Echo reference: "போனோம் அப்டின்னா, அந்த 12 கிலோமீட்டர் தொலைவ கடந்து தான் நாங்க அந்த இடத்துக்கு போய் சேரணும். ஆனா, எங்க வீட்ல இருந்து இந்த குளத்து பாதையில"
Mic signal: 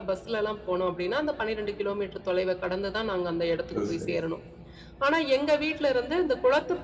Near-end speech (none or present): present